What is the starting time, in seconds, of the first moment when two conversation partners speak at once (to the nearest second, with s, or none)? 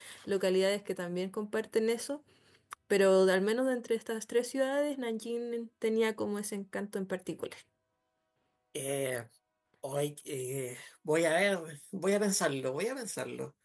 none